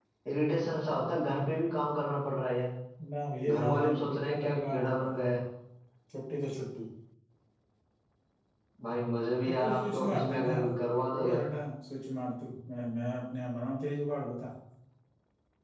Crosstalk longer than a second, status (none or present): present